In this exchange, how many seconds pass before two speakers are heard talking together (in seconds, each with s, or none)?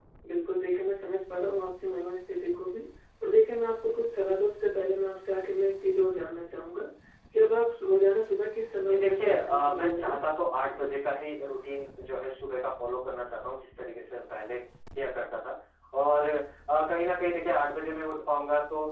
8.8 s